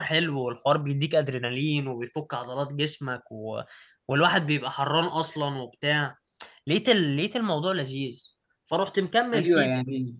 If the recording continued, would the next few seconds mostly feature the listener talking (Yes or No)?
Yes